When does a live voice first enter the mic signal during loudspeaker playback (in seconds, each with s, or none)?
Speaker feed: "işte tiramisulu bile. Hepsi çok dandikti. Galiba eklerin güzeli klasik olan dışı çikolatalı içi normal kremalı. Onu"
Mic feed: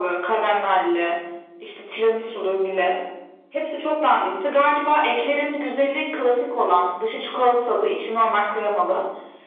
none